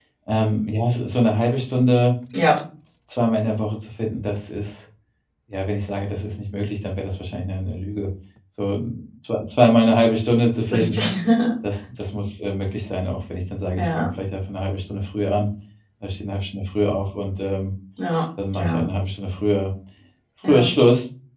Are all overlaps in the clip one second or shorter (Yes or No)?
Yes